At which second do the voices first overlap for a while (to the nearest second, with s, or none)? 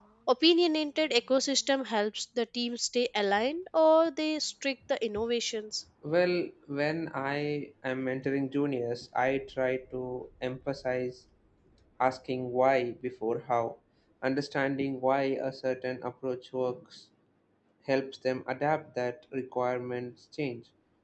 none